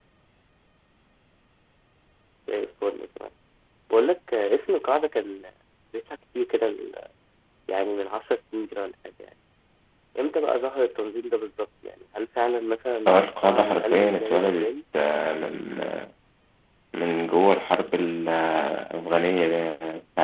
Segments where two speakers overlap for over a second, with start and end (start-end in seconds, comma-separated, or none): 13.1-14.7